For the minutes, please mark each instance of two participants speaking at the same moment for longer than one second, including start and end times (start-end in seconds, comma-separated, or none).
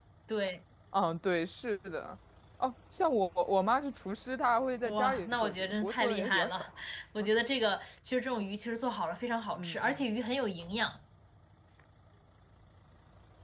4.8-6.7